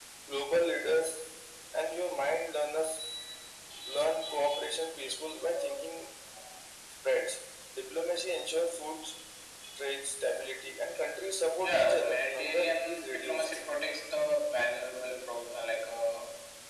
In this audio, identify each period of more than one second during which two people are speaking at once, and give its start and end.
11.7-13.6

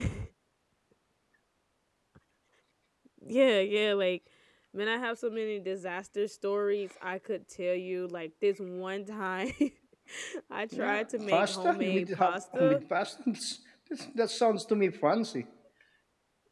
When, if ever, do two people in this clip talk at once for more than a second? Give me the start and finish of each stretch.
10.7-12.8

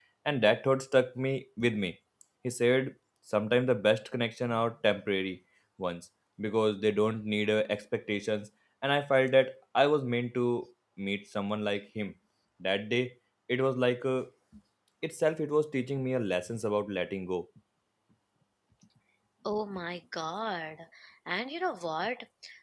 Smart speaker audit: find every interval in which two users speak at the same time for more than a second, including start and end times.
none

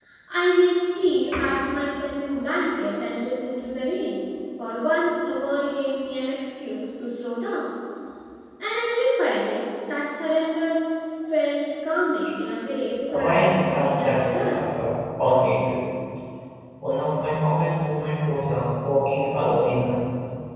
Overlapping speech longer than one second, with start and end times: 13.1-14.6

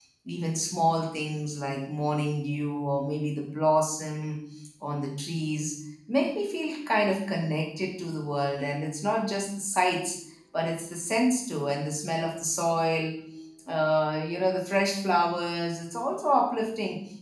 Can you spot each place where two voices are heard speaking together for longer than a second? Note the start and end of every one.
none

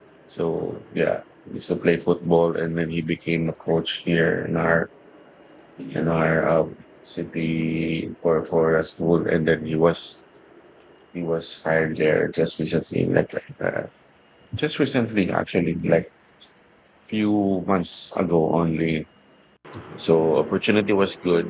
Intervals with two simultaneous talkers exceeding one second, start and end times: none

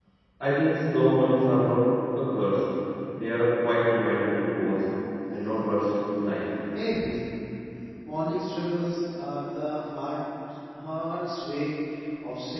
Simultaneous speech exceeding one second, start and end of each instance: none

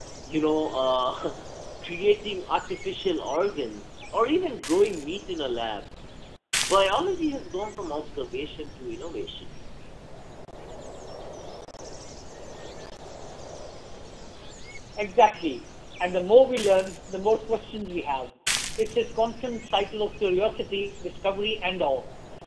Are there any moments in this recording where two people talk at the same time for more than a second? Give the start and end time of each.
none

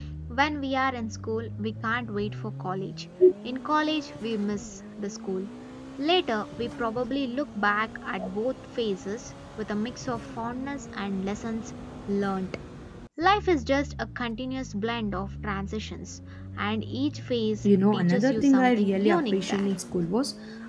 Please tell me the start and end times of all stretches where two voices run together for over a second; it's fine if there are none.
17.6-19.7

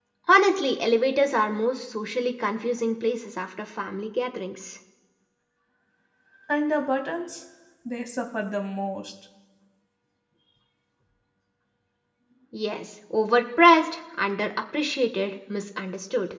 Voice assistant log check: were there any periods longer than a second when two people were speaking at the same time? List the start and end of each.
none

